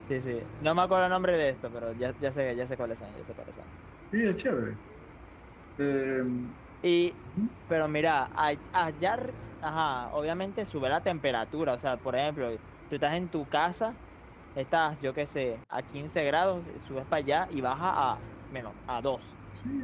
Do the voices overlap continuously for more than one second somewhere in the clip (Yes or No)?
No